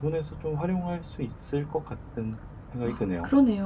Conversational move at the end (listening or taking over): taking over